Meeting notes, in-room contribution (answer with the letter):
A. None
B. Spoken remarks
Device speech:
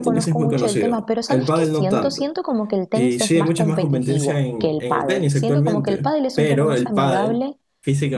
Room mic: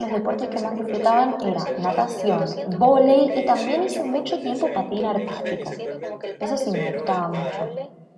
B